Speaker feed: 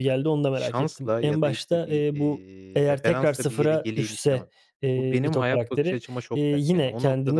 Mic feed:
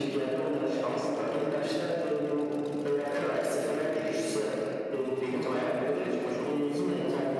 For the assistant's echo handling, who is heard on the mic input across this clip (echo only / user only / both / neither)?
echo only